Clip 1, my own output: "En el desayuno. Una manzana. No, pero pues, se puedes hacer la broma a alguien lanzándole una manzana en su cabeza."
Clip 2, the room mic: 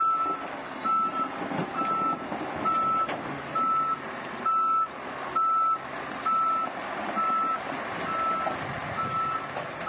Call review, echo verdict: none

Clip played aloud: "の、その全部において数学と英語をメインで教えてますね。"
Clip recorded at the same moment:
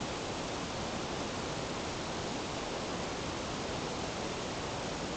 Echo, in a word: none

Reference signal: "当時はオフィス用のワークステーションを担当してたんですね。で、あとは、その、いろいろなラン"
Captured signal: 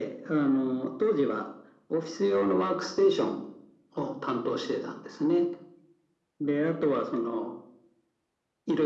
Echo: present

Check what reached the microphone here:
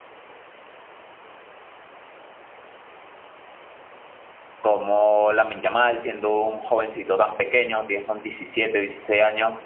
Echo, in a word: none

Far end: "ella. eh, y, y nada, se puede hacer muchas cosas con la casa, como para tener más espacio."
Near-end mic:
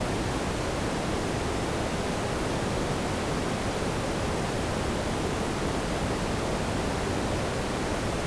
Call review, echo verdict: none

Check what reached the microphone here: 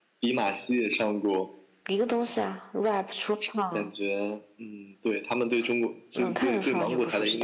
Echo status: present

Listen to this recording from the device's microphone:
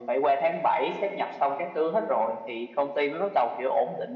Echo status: present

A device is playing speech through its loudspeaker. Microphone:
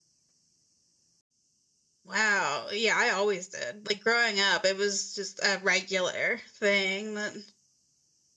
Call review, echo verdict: none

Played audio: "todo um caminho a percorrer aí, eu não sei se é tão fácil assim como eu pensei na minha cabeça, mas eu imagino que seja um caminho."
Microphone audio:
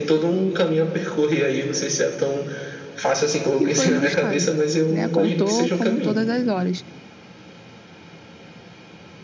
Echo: present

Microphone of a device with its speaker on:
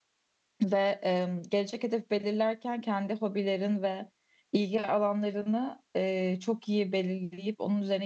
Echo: none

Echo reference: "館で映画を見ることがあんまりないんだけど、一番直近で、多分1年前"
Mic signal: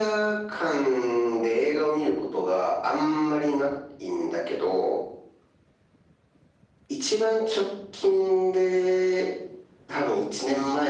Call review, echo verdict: present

